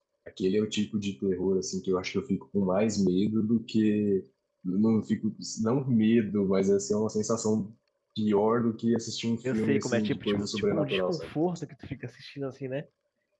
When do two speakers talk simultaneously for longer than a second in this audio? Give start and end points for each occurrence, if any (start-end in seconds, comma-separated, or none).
9.5-11.3